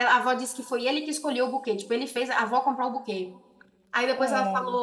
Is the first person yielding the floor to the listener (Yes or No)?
No